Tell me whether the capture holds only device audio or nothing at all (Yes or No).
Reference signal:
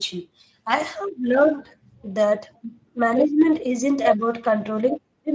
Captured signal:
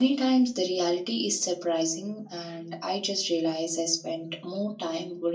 No